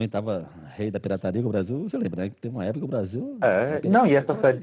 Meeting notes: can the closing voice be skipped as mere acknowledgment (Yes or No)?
No